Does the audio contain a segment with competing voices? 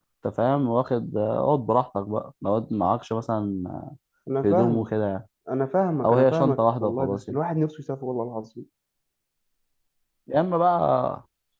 Yes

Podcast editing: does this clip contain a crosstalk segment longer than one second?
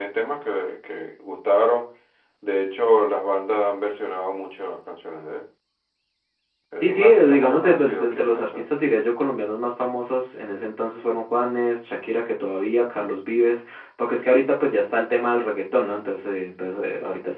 Yes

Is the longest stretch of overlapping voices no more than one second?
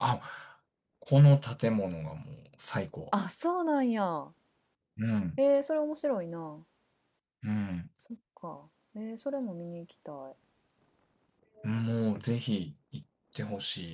Yes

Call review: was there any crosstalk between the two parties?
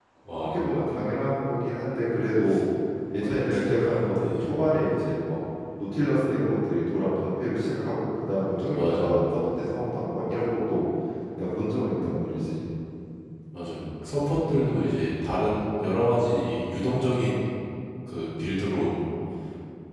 Yes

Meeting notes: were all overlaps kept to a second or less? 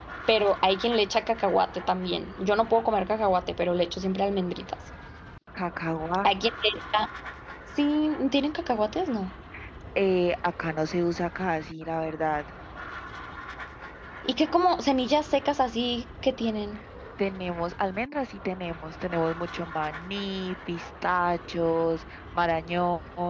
Yes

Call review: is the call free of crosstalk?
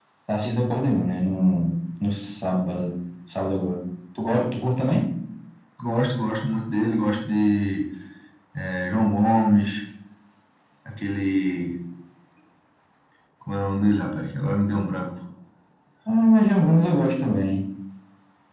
Yes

